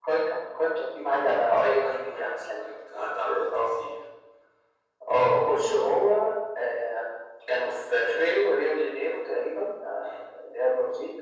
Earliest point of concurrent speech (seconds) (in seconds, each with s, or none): 1.8 s